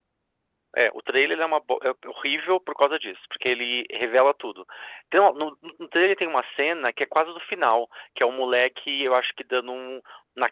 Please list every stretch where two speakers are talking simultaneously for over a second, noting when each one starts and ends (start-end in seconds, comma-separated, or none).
none